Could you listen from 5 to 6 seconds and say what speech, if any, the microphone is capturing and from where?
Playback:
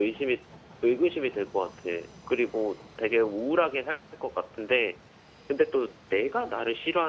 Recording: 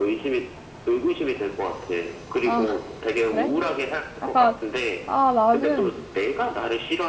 both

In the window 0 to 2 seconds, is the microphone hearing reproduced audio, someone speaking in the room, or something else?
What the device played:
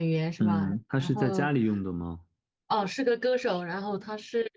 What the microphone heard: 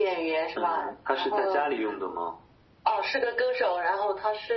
echo only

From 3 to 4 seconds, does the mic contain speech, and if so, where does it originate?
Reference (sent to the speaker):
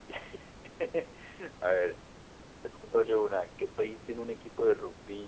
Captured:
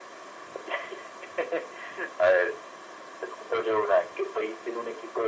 echo only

